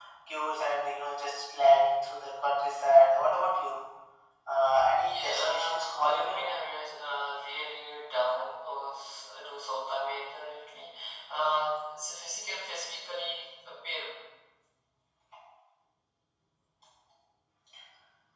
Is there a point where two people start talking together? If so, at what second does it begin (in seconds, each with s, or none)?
5.0 s